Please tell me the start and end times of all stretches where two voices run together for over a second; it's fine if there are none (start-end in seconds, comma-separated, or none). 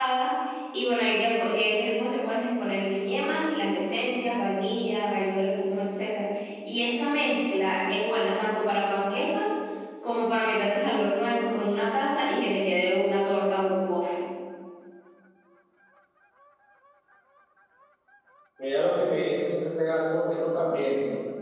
none